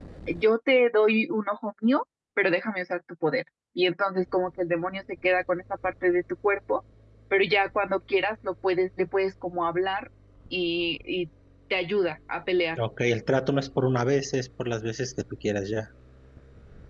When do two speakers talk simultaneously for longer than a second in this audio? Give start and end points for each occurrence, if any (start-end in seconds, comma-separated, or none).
none